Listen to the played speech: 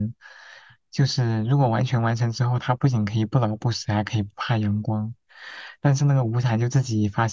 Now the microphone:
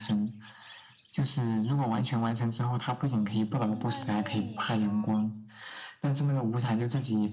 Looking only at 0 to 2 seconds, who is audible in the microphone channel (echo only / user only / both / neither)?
echo only